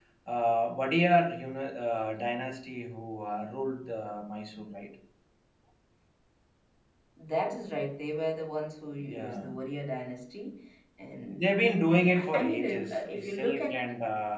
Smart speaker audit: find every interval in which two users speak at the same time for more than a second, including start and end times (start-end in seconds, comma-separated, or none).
12.1-13.7